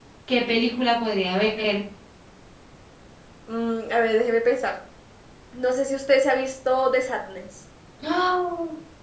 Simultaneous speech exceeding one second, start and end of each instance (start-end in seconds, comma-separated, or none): none